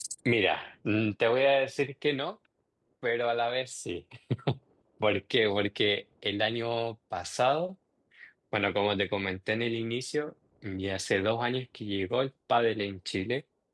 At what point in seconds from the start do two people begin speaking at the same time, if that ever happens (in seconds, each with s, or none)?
none